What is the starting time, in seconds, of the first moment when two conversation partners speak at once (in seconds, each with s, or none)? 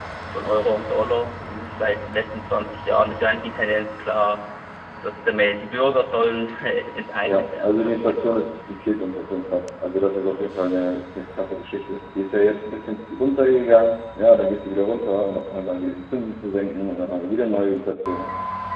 7.2 s